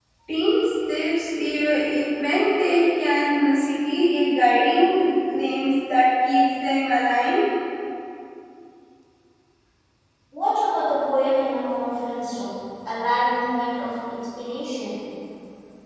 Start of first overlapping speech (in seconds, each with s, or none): none